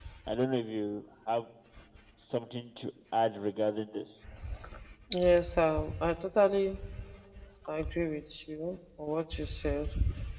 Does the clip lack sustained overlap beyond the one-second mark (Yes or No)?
Yes